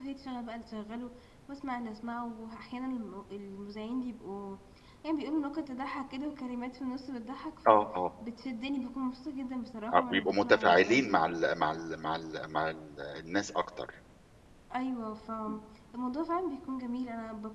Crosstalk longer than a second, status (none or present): present